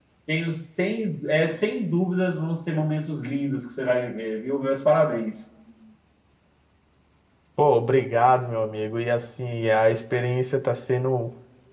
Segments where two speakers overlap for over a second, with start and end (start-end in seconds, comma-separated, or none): none